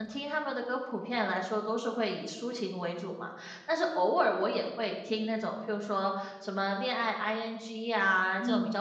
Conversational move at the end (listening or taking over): listening